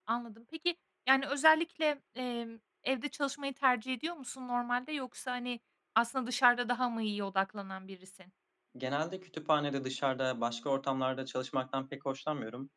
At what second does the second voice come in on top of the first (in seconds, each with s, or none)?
none